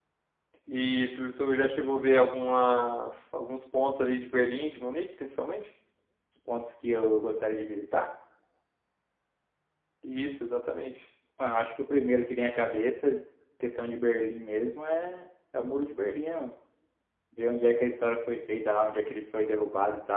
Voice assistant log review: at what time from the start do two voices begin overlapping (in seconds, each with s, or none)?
none